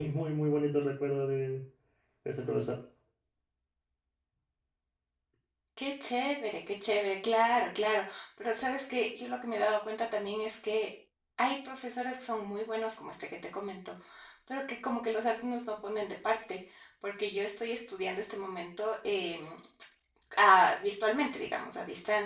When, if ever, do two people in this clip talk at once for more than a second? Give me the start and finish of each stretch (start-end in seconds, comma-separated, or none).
none